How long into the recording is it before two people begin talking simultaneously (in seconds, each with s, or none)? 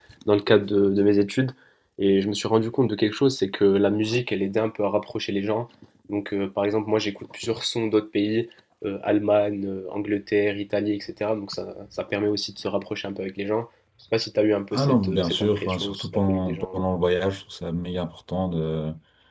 14.7 s